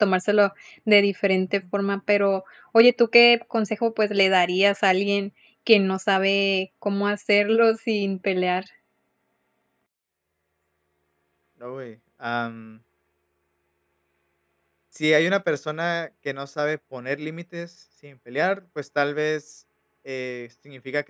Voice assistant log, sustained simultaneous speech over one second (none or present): none